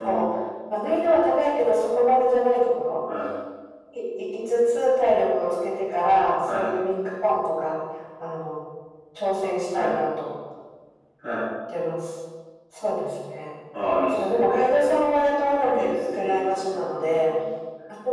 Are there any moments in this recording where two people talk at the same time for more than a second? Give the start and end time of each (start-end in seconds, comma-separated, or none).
15.7-17.3